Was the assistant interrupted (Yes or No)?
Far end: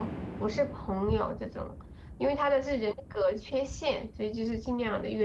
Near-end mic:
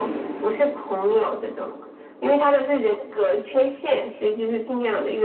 No